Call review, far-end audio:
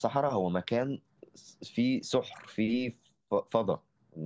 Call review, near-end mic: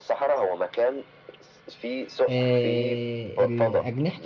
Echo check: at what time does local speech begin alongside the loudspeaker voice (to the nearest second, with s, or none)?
2 s